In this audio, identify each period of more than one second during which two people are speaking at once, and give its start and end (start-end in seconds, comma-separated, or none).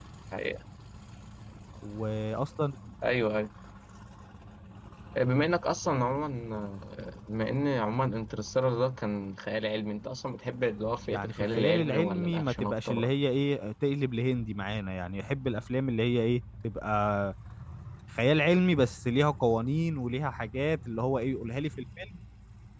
11.1-13.1